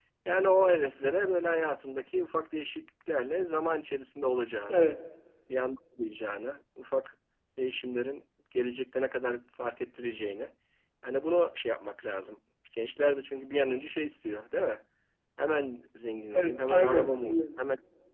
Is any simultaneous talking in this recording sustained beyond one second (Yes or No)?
Yes